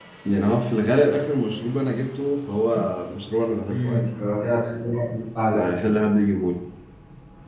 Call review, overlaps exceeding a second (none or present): none